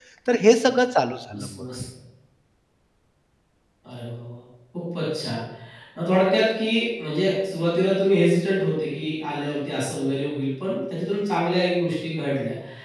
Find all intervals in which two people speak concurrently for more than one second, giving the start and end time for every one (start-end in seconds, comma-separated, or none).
none